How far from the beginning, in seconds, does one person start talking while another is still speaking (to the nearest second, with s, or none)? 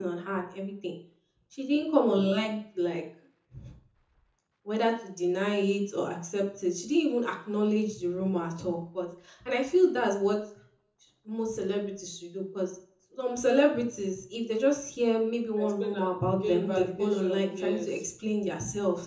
16 s